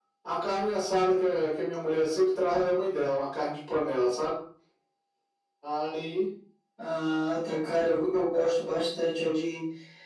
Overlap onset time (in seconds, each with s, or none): none